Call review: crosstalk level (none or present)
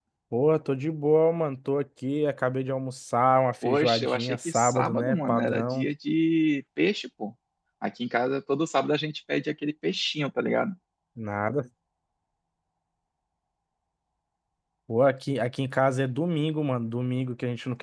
present